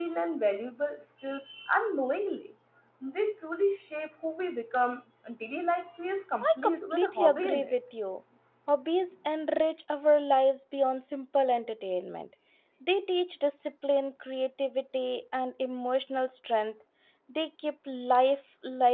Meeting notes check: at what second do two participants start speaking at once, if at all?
6 s

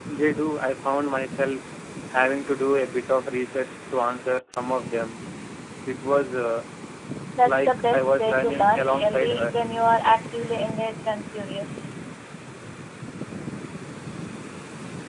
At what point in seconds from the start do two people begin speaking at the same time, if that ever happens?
7 s

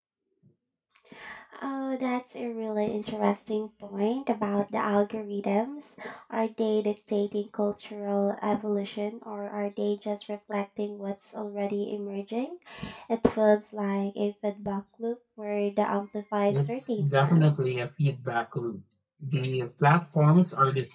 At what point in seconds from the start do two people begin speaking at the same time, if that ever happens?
16 s

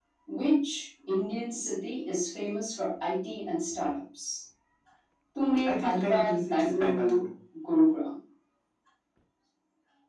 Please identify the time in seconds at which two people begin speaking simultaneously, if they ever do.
6 s

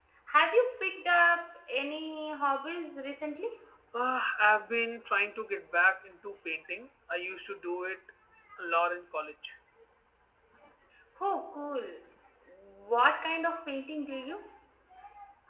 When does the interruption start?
none

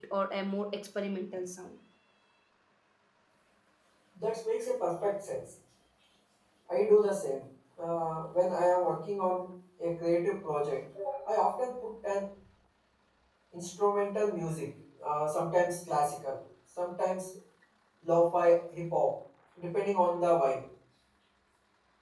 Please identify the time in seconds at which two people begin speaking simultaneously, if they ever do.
none

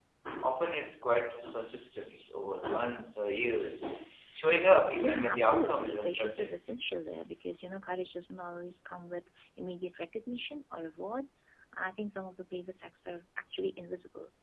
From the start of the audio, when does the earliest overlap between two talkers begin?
5 s

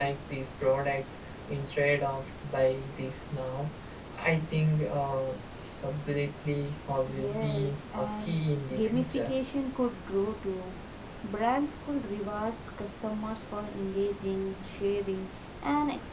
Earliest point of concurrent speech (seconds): 7 s

